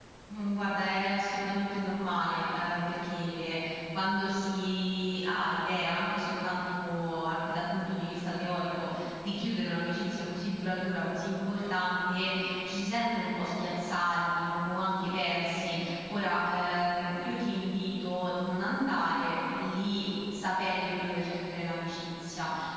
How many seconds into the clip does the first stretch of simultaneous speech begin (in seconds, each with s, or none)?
none